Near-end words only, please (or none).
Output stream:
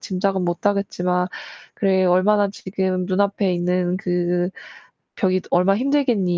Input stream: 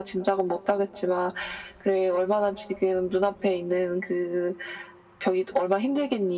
none